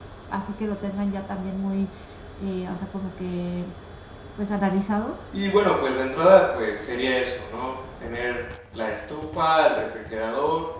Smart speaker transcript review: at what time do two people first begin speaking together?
none

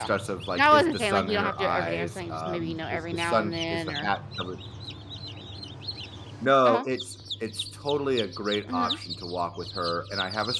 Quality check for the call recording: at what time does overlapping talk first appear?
0.6 s

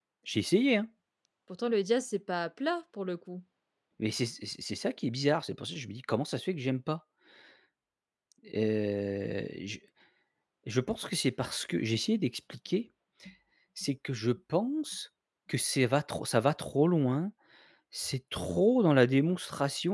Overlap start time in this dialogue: none

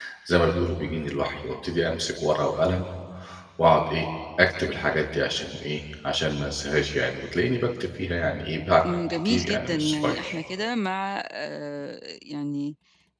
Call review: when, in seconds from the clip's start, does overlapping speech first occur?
9.1 s

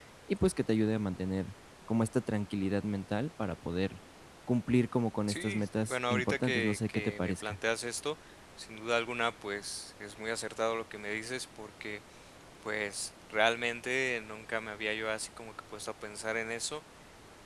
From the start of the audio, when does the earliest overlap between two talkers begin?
5.3 s

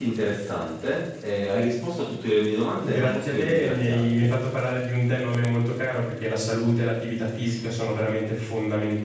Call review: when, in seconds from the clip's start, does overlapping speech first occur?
2.8 s

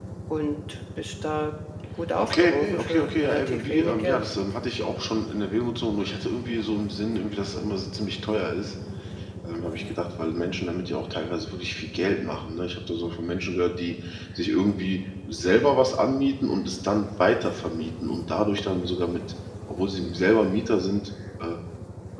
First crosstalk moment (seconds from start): 2.2 s

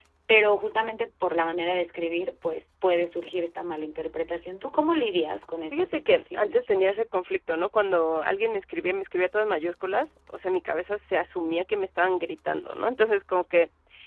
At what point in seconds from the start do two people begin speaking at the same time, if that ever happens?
5.7 s

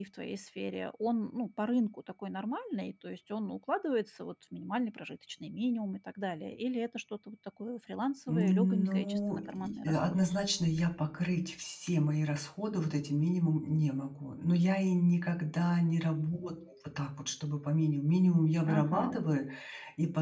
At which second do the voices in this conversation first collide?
8.3 s

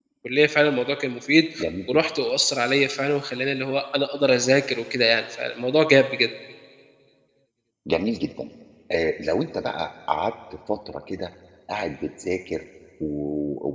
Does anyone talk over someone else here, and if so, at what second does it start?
none

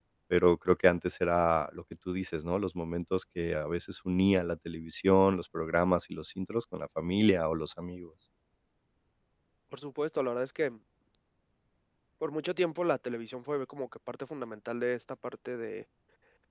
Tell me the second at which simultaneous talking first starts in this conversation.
none

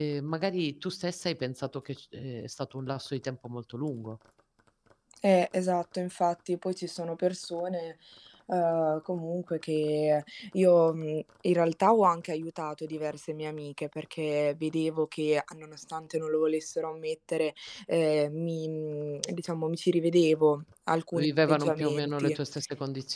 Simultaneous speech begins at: 21.1 s

